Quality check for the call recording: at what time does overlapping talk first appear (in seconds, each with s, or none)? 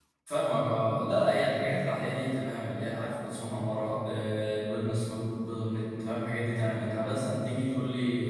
none